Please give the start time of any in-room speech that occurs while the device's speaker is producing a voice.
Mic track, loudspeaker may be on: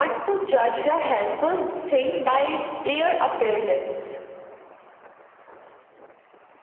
none

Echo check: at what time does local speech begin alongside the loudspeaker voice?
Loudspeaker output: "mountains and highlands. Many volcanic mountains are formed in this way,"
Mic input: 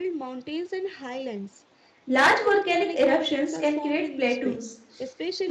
2 s

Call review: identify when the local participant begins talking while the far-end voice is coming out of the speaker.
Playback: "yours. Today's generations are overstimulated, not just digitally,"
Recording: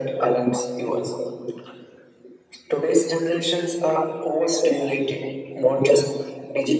none

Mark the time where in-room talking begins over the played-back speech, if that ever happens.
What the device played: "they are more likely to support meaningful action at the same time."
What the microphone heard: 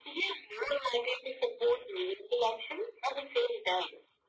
none

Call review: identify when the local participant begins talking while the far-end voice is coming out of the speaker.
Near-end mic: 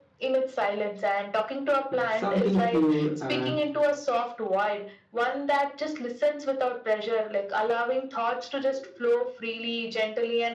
2 s

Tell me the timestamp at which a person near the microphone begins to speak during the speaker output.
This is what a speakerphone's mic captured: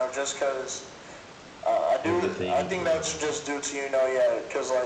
2 s

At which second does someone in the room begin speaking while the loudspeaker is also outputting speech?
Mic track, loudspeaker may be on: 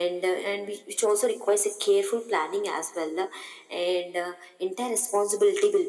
none

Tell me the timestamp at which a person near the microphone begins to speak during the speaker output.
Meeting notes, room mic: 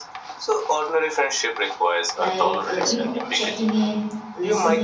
2 s

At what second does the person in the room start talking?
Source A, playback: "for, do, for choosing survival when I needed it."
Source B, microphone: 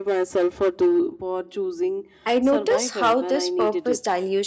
2 s

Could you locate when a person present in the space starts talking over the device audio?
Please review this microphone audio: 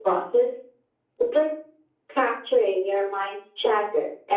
none

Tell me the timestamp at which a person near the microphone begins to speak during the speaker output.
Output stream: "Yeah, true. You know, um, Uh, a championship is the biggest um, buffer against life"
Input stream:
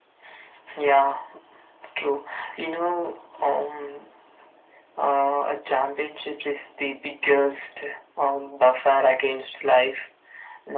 none

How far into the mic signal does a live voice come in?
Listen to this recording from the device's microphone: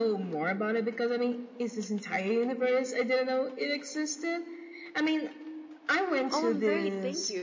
6 s

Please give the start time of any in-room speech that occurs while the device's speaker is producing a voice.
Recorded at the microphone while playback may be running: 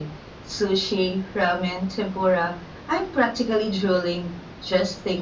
none

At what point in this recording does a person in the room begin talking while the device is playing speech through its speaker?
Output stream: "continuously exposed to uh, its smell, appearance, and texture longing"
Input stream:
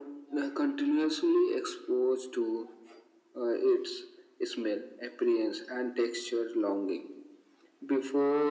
none

